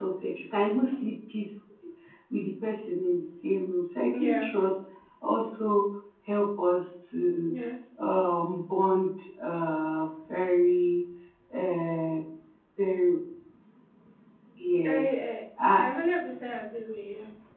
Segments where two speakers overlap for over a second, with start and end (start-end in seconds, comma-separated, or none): none